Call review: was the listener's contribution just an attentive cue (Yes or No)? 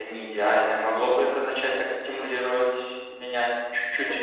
No